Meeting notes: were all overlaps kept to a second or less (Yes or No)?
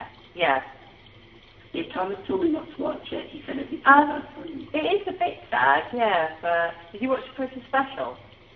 Yes